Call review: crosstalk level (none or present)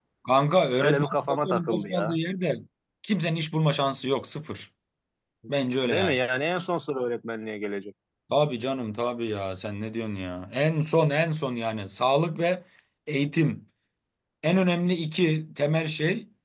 present